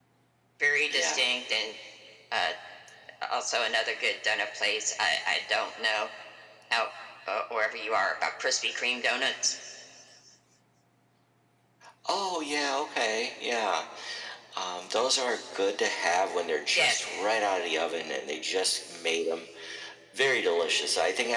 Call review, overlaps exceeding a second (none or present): none